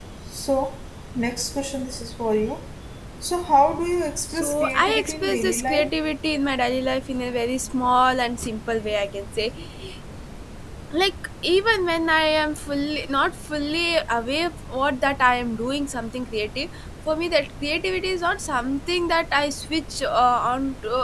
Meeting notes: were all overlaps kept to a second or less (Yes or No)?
No